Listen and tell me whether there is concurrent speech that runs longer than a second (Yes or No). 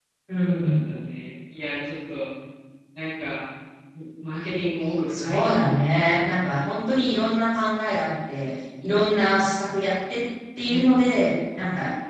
No